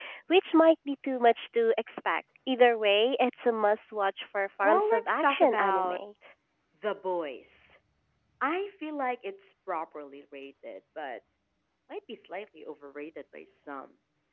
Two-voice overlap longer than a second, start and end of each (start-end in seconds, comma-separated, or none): 4.6-6.0